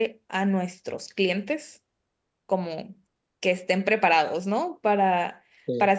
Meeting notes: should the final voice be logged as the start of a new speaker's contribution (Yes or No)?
No